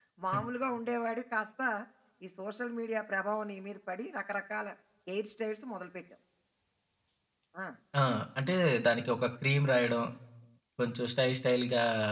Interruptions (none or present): none